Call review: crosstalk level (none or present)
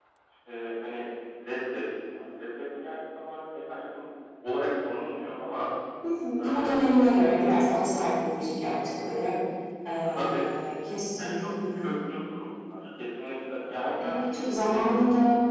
present